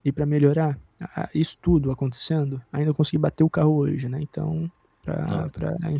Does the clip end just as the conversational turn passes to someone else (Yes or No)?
No